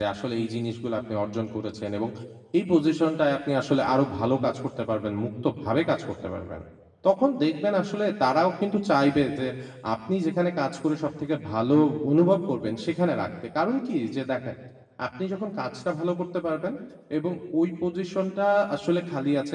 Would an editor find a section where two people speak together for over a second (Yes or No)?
No